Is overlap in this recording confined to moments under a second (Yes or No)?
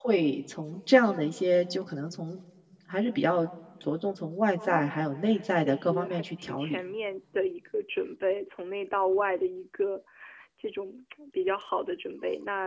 No